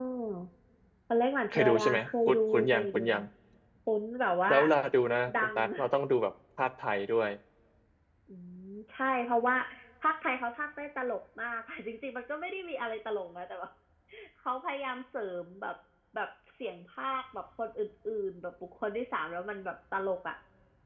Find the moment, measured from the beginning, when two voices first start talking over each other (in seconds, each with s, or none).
1.5 s